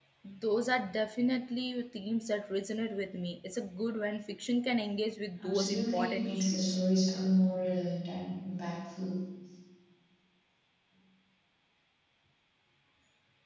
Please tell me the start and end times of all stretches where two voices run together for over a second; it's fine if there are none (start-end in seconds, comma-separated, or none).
5.4-6.8